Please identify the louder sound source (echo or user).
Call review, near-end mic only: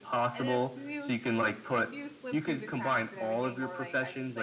echo